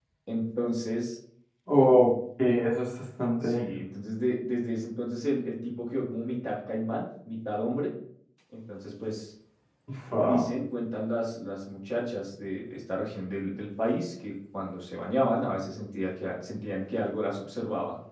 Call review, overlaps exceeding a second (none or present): none